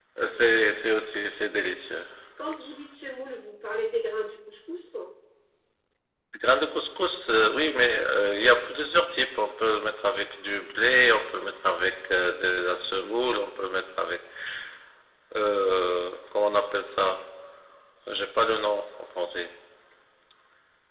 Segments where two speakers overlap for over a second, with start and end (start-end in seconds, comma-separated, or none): none